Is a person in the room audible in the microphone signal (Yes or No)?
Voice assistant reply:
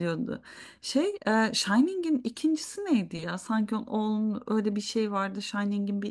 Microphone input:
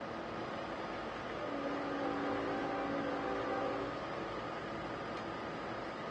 No